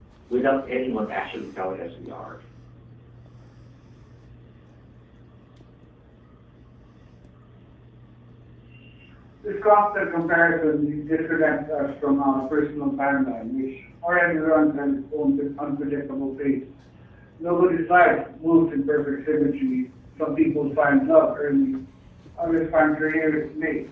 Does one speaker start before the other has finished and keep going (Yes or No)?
No